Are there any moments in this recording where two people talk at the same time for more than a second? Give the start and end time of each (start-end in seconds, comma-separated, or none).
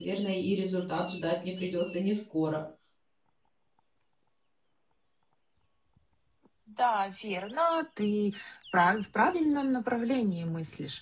none